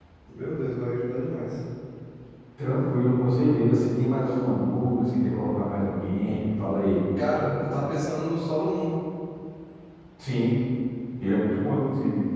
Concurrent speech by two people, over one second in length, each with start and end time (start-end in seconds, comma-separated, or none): none